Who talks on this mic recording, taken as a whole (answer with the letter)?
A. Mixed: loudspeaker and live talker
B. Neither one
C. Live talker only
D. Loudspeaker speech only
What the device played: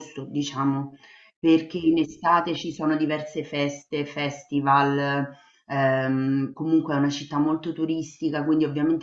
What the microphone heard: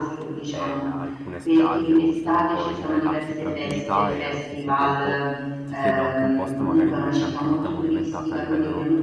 A